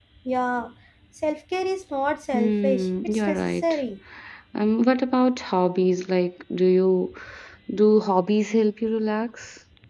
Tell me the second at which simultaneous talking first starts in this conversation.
2.3 s

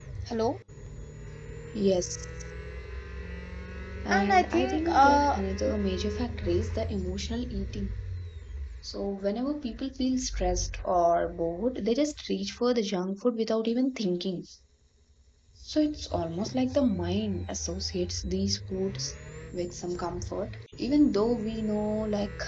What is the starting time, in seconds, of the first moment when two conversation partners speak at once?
4.1 s

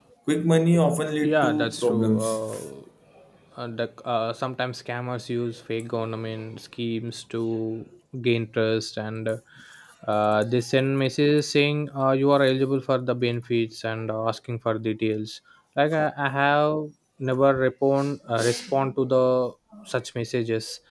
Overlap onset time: 1.2 s

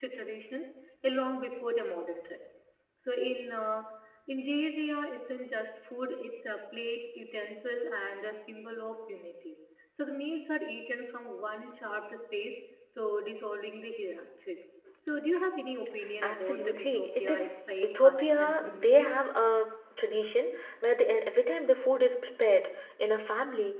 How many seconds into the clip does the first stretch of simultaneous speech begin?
16.2 s

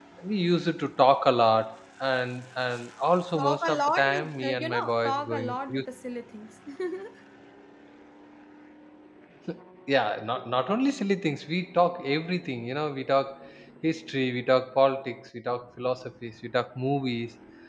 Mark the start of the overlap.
3.3 s

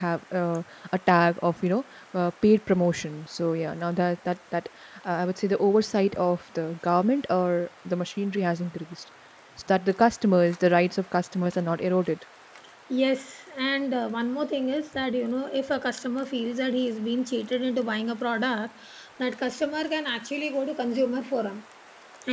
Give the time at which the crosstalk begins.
none

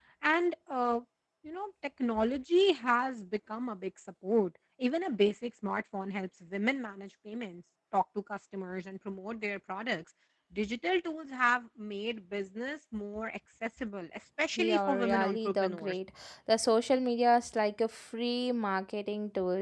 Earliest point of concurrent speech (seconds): 14.6 s

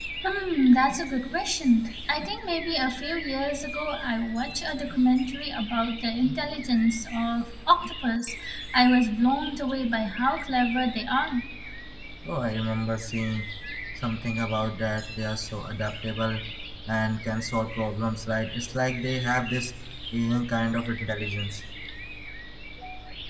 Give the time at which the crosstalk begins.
none

